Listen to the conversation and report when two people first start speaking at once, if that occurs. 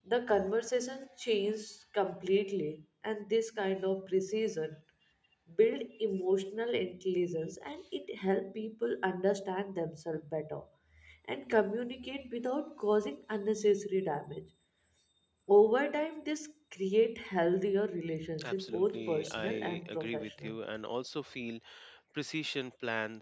18.4 s

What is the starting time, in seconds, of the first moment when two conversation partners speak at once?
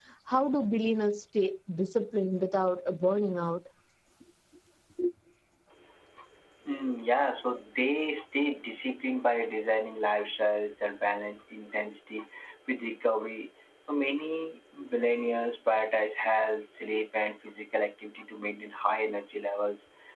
none

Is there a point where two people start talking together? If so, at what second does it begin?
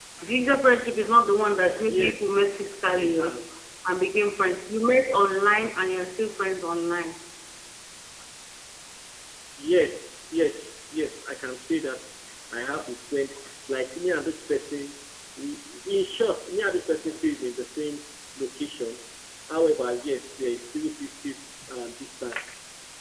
1.7 s

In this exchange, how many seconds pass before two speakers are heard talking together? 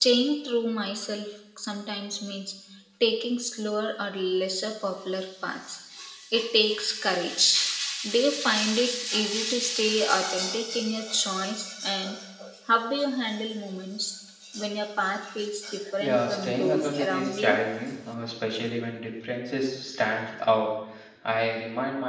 16.0 s

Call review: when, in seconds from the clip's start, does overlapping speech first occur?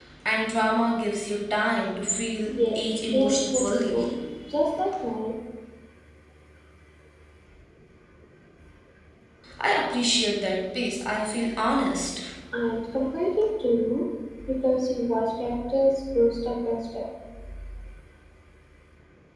2.5 s

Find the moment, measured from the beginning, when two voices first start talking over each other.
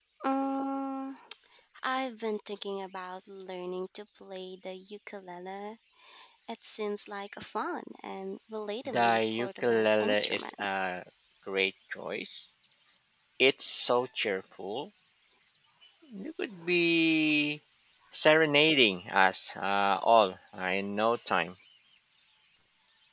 8.8 s

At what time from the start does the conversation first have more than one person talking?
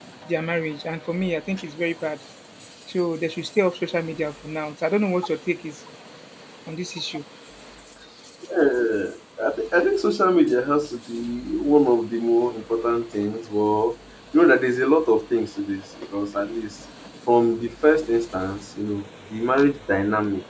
none

